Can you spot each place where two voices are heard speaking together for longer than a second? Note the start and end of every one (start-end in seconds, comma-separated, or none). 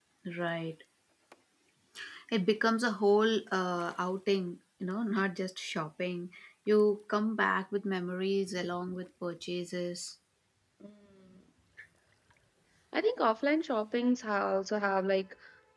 none